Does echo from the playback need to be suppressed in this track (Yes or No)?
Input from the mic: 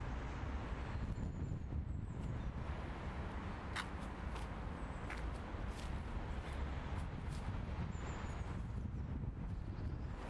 No